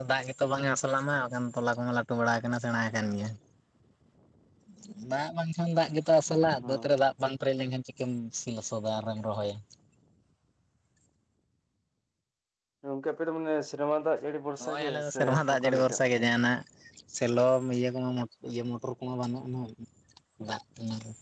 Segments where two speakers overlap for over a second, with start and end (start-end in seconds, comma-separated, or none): 14.6-16.2